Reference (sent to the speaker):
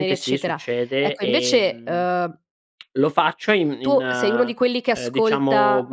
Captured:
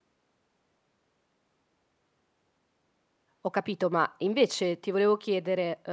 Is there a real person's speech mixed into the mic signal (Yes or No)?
Yes